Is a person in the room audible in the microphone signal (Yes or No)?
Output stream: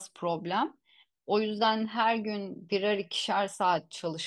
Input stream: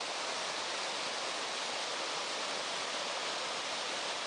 No